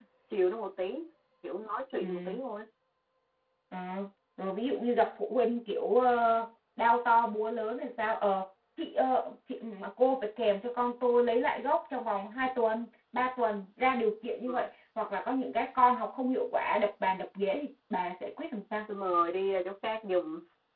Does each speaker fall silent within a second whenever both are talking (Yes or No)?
Yes